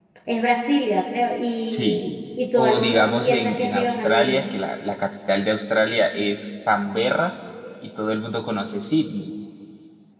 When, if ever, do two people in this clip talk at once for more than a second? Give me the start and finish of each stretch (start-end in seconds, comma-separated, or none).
2.6-4.4